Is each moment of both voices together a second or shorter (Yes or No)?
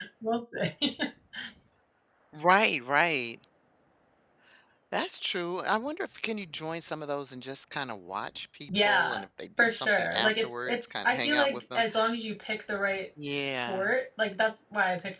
No